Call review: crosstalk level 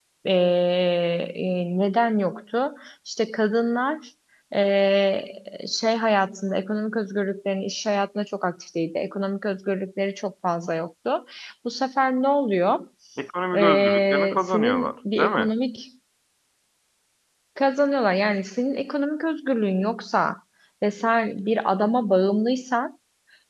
present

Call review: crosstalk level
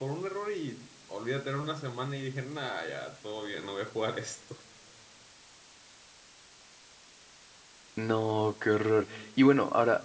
none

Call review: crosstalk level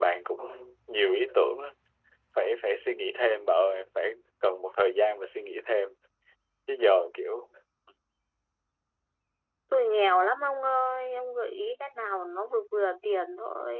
none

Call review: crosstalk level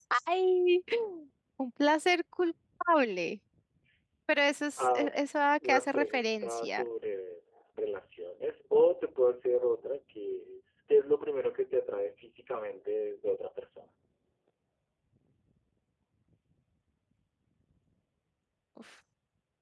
present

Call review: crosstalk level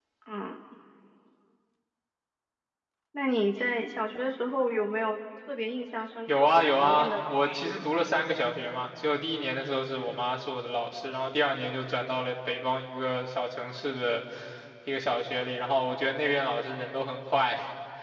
present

